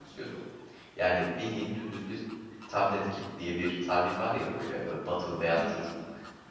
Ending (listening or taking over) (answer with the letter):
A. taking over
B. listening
B